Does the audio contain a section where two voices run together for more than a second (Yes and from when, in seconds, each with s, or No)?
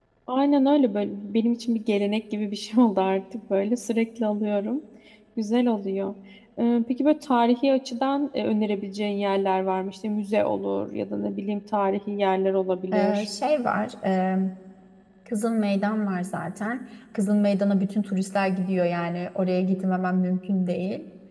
No